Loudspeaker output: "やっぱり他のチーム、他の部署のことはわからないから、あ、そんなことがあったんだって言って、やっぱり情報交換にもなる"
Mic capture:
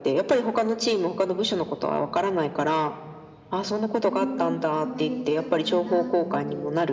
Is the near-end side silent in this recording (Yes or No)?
No